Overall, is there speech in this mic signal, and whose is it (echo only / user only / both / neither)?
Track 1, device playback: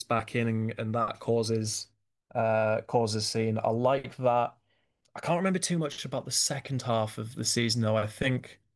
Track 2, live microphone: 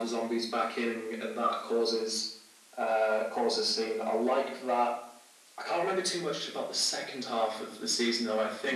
echo only